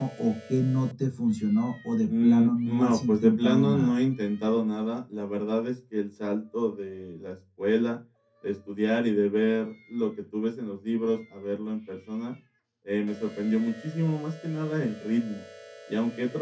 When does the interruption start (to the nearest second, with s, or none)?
2 s